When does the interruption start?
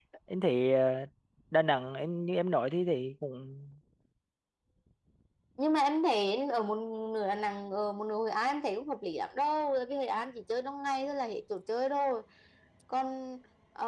none

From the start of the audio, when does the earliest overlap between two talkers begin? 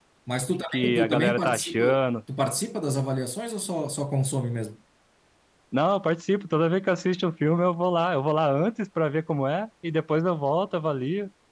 0.7 s

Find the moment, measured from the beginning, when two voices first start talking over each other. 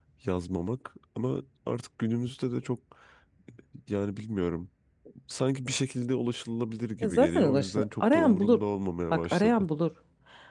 7.0 s

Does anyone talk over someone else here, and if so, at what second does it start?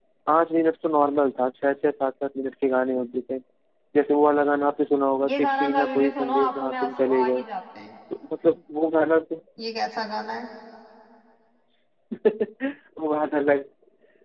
5.2 s

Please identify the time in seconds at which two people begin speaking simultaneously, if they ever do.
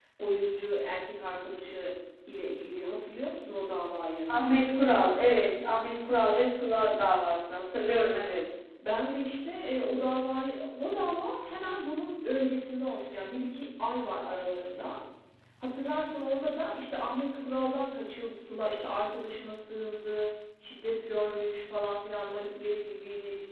none

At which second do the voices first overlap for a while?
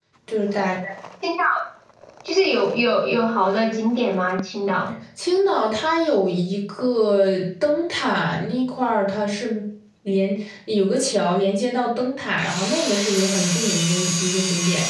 none

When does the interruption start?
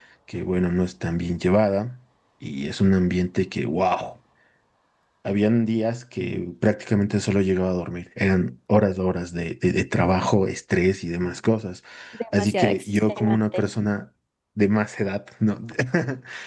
12.4 s

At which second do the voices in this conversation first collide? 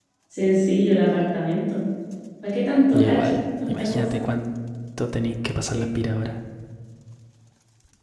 2.9 s

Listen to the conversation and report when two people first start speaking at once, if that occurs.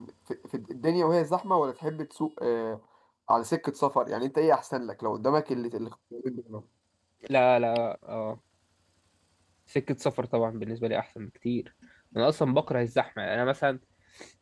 none

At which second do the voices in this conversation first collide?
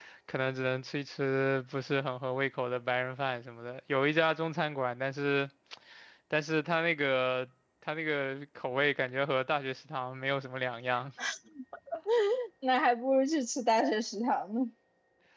none

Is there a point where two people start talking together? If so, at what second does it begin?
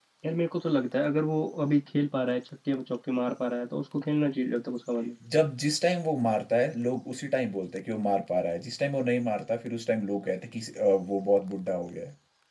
none

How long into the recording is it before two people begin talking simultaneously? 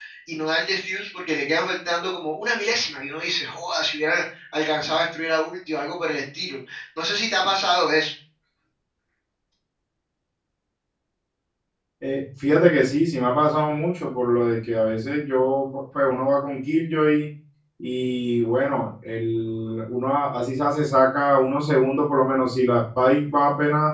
none

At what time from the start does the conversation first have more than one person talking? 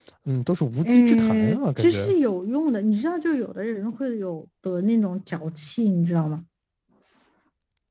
0.8 s

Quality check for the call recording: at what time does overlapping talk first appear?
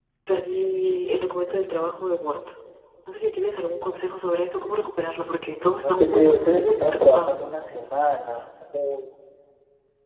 5.8 s

